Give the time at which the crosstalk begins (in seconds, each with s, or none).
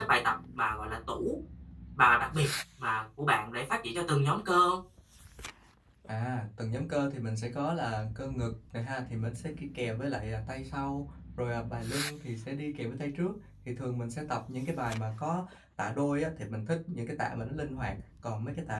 none